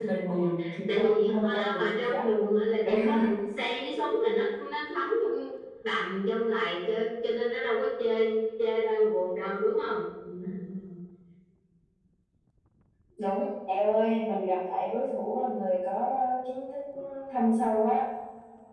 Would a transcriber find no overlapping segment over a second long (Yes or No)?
No